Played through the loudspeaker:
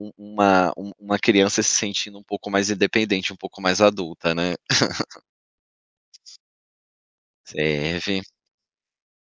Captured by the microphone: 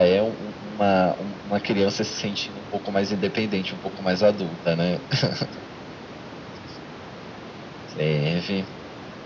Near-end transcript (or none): none